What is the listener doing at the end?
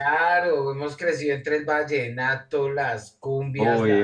taking over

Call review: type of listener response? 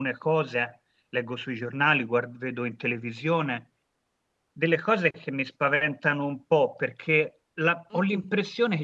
listening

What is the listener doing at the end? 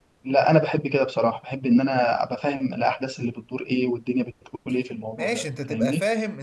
taking over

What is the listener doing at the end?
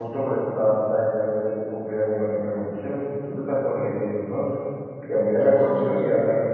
listening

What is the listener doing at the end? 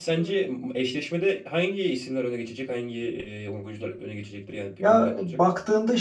taking over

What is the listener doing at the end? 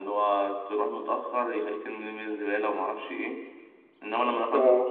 listening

